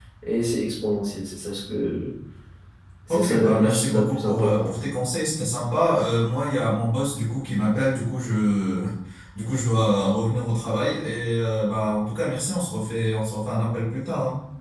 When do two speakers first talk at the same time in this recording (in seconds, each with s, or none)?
3.1 s